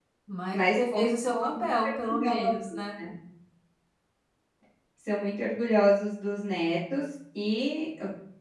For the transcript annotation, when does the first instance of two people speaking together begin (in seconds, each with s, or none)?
0.5 s